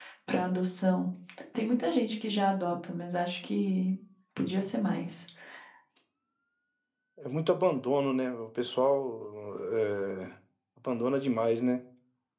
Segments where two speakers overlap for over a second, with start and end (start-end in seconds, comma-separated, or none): none